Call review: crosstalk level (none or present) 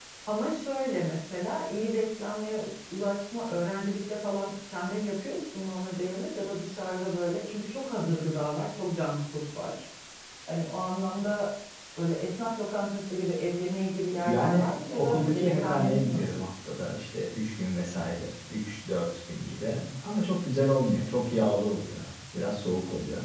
present